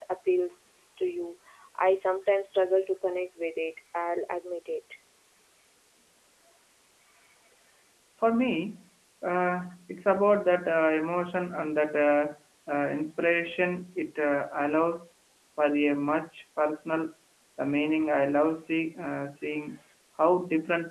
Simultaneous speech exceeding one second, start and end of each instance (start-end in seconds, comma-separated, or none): none